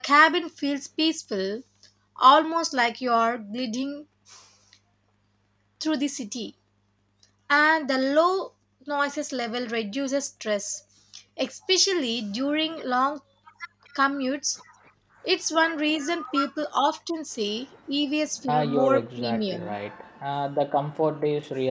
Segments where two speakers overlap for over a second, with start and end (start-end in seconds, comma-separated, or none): 18.5-19.8